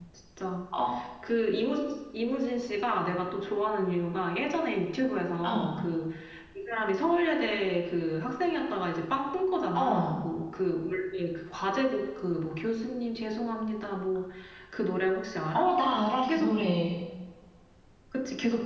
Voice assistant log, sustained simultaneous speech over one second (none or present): none